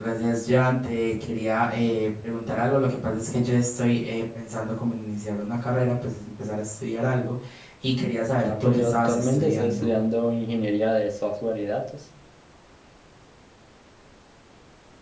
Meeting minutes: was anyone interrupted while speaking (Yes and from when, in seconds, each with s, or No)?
Yes, from 8.4 s